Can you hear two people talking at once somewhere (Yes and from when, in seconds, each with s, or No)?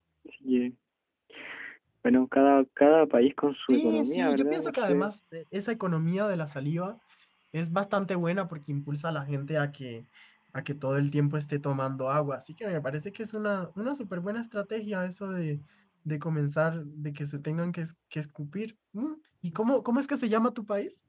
Yes, from 3.7 s